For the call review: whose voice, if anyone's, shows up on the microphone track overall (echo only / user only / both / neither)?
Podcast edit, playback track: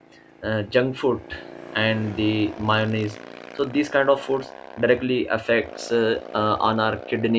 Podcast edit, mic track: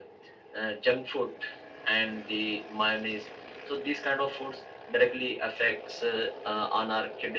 echo only